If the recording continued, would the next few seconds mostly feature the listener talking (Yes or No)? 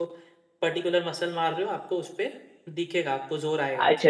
Yes